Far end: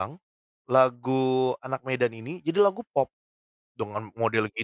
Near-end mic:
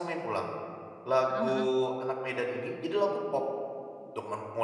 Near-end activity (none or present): present